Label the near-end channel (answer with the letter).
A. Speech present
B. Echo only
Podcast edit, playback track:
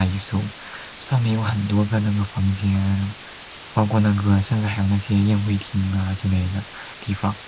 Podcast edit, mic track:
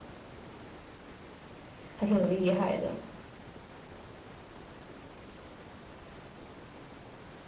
A